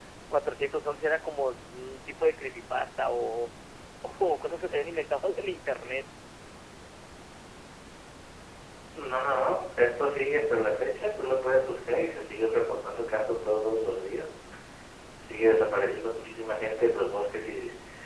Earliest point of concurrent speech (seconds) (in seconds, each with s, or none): none